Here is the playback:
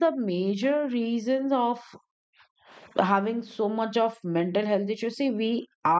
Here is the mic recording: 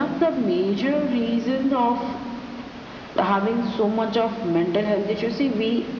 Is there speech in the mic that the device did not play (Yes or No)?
No